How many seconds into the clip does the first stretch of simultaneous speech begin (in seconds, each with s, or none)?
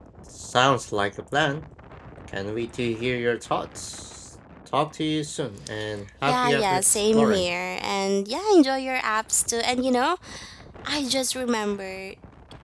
6.3 s